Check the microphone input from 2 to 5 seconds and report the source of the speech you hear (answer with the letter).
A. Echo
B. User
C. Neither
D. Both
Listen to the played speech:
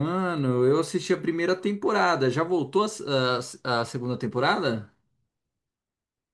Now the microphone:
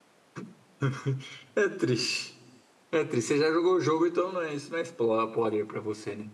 B